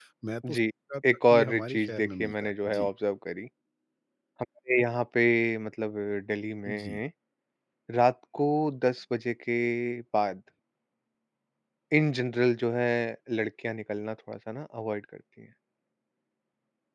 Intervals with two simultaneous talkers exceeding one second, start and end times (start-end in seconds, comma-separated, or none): 1.2-2.9